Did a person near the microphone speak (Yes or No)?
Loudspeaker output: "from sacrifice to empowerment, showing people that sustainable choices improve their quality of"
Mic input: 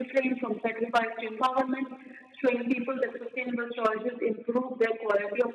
No